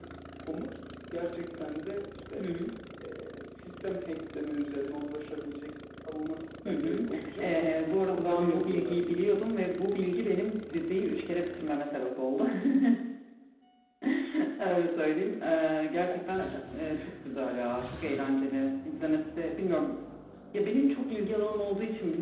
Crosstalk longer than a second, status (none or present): present